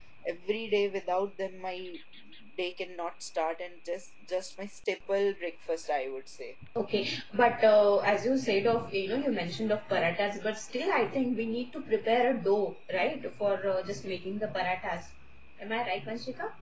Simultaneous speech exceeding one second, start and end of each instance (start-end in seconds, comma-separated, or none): none